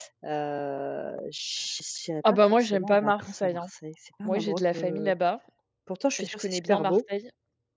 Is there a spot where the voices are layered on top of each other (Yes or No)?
Yes